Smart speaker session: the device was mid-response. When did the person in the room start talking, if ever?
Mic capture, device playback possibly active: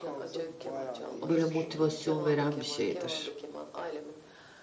1.3 s

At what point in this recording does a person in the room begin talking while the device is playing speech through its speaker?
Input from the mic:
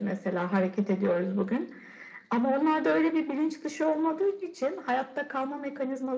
none

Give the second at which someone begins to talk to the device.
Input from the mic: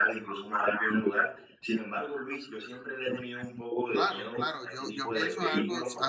3.9 s

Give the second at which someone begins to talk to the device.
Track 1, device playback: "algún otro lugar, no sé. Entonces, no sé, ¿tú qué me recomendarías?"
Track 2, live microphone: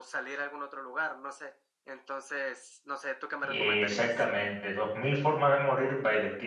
3.4 s

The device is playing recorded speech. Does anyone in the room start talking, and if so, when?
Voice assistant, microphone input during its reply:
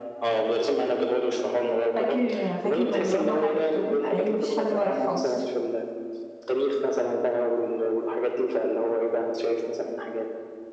1.9 s

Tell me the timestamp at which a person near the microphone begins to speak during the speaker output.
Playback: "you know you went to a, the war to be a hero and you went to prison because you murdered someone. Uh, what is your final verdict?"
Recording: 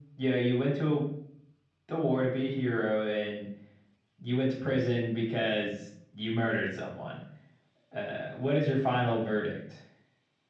none

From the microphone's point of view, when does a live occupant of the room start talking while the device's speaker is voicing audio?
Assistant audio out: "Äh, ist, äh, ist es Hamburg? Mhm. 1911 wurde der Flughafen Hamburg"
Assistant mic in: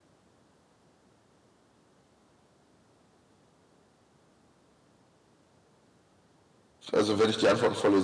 6.9 s

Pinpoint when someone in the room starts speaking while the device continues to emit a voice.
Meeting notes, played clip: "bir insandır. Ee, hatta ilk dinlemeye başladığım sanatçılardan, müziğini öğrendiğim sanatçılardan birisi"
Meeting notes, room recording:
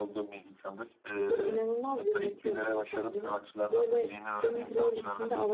1.3 s

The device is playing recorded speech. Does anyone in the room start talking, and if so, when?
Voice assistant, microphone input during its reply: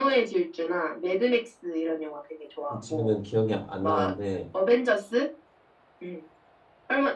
2.8 s

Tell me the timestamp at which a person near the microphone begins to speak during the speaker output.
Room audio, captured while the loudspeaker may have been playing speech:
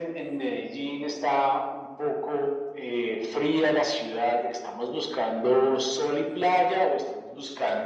none

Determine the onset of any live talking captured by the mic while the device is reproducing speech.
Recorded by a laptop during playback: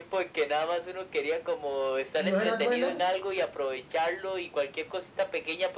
2.1 s

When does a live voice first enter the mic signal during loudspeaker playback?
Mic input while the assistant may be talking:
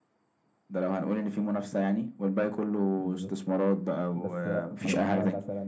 3.0 s

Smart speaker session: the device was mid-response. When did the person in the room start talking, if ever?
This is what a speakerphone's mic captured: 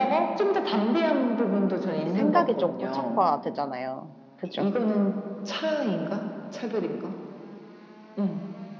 2.1 s

